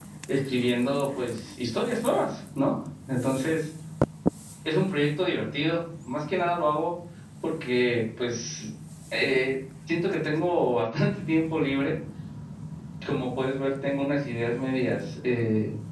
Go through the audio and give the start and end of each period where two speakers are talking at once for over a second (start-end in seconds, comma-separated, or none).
none